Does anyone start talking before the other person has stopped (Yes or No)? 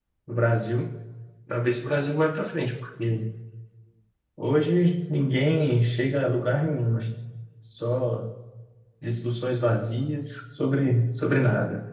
No